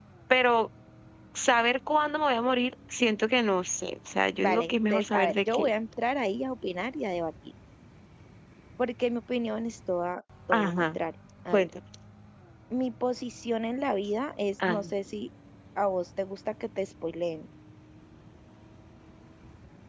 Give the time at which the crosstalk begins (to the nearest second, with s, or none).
4 s